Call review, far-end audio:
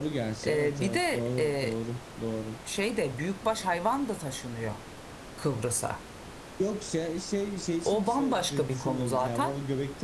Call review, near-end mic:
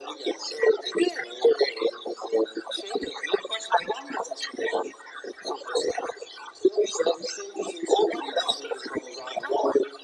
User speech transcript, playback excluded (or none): none